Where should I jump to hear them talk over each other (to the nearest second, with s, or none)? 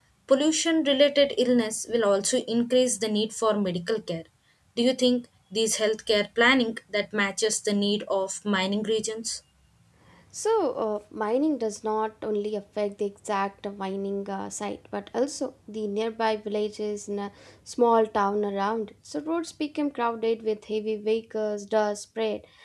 none